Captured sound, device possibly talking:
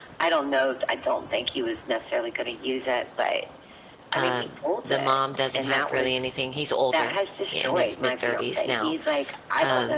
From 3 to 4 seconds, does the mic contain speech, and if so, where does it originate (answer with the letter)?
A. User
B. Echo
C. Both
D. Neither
B